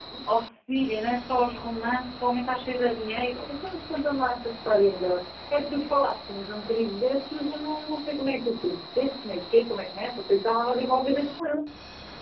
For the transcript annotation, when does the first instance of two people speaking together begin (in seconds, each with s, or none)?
none